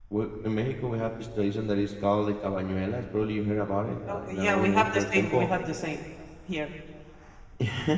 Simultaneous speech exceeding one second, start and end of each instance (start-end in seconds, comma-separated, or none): 4.1-5.5